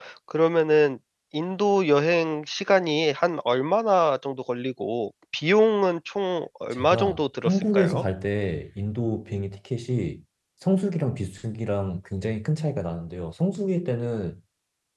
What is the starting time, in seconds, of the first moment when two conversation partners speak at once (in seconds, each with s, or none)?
6.7 s